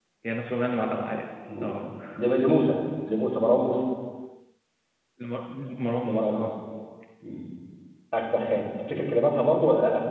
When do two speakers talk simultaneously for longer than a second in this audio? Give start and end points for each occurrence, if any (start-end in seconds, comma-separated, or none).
none